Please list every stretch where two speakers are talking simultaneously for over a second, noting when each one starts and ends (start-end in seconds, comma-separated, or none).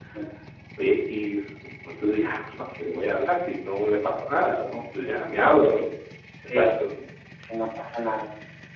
none